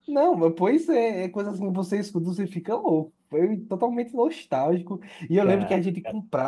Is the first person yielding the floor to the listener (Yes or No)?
No